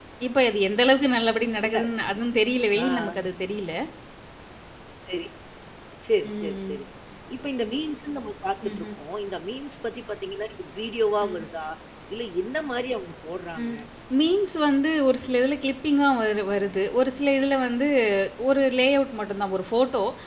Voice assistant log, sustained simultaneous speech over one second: none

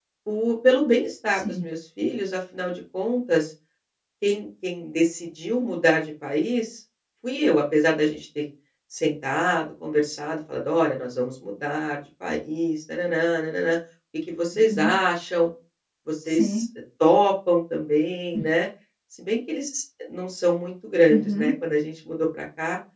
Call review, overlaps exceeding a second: none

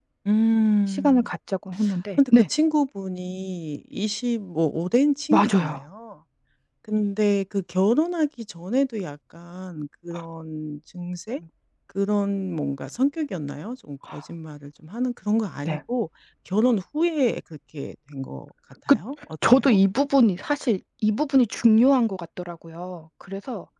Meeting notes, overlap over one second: none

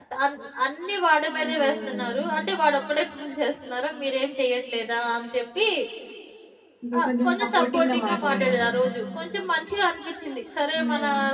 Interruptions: present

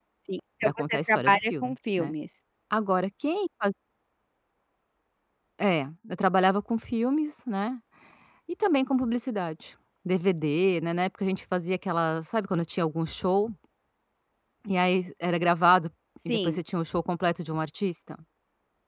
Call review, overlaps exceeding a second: present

